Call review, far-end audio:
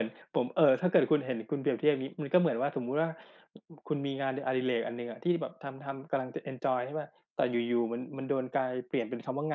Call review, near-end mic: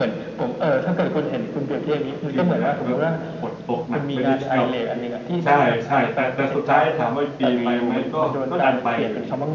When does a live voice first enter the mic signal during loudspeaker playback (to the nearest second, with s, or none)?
2 s